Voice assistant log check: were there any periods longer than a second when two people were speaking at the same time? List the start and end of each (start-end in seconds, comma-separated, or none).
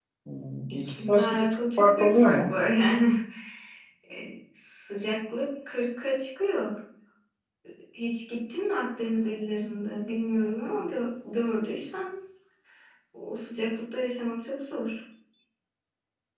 0.7-2.5